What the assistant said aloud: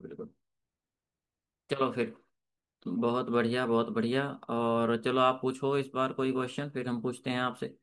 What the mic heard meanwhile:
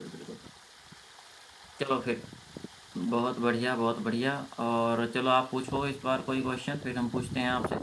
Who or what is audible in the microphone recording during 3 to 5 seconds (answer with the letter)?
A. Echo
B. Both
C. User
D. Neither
A